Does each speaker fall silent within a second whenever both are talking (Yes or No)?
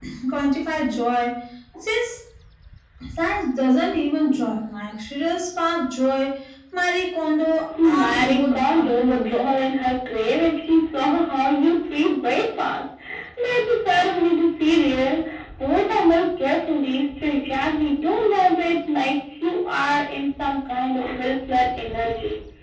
No